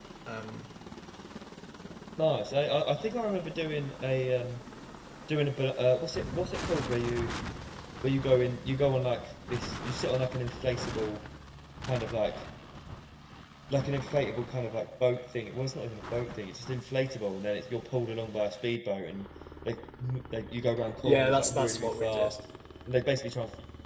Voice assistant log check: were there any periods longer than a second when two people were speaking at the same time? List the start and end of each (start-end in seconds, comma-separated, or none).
21.0-22.3